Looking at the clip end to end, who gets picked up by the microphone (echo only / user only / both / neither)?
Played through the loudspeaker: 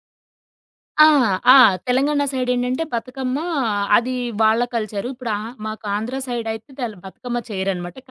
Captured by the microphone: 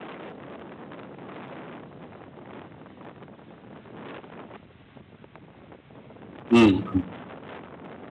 user only